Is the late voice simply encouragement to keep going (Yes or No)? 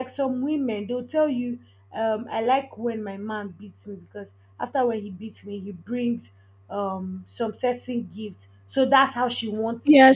No